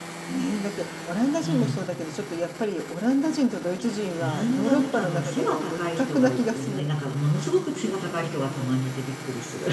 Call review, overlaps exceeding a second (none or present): present